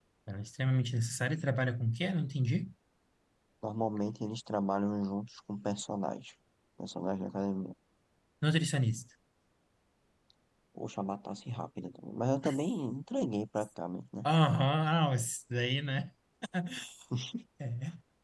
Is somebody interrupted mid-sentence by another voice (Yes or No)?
No